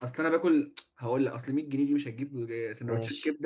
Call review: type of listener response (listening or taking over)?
listening